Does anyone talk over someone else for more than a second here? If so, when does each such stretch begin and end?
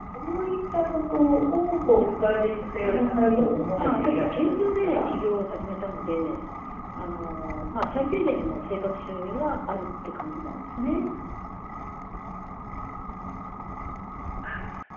2.8-5.1

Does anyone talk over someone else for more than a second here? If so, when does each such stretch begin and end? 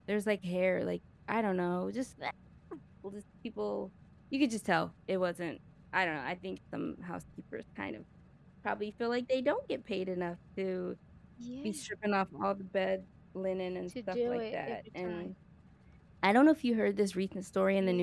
13.9-15.3

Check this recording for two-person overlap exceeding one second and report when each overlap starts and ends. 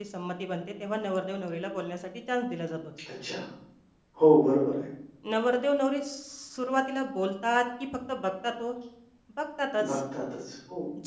none

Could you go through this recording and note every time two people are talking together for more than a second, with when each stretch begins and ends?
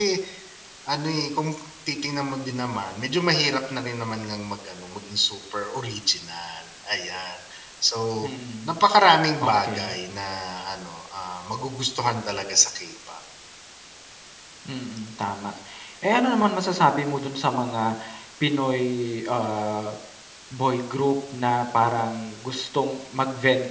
none

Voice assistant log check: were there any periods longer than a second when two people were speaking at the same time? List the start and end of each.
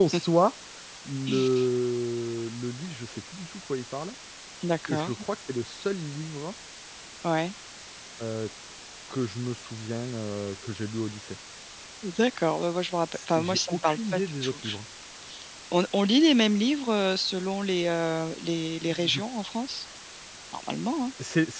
13.1-14.6

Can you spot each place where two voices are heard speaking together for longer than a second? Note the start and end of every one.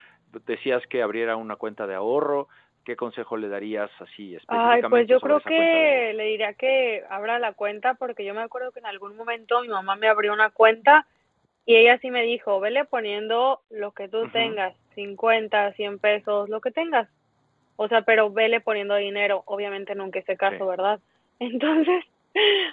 4.5-6.1

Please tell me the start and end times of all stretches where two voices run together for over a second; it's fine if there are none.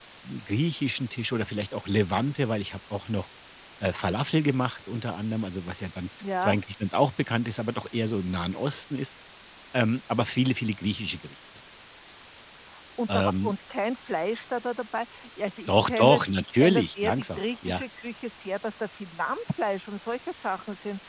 15.7-17.8

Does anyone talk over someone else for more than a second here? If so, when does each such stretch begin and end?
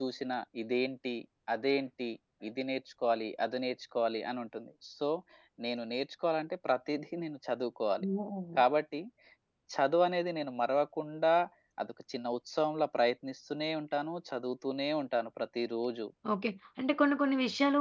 none

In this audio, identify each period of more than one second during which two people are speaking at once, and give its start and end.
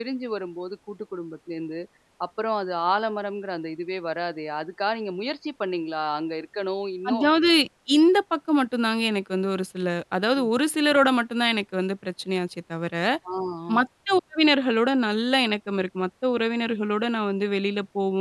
none

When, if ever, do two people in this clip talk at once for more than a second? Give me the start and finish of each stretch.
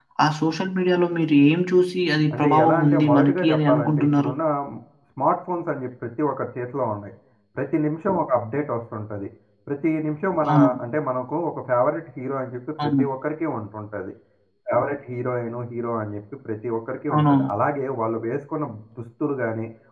2.3-4.3

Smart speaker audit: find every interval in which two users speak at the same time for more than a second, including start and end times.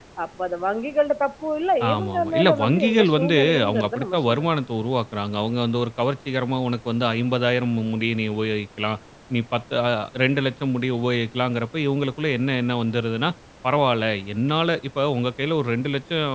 1.9-4.5

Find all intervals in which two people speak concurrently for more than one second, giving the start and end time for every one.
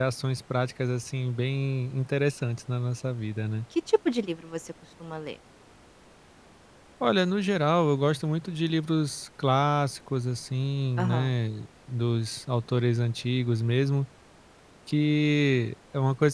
none

